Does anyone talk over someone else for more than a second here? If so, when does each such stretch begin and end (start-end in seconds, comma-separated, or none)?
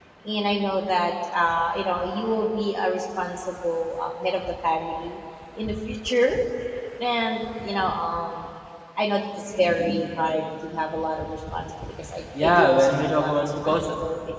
12.4-13.8